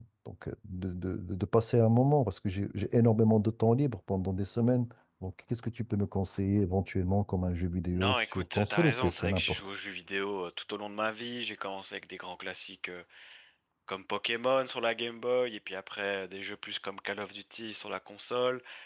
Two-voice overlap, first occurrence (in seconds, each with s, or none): 7.9 s